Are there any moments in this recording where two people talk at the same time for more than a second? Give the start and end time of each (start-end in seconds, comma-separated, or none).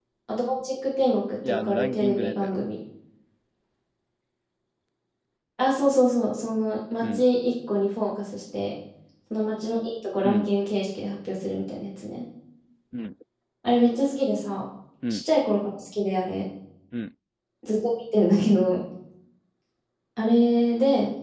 1.5-2.7